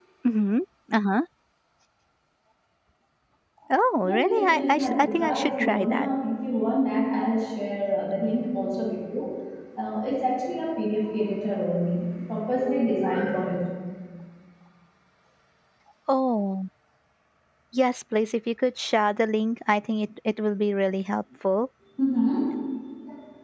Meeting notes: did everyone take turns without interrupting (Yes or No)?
No